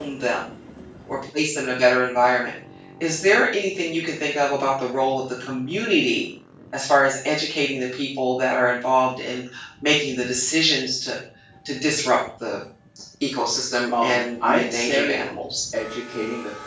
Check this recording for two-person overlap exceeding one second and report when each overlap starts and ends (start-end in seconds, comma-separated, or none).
13.9-15.2